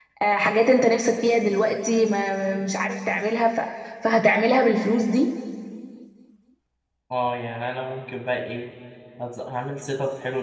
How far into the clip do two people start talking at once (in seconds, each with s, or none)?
none